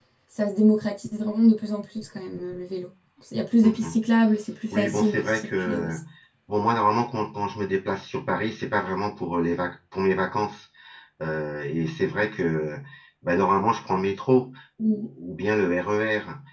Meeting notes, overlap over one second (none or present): present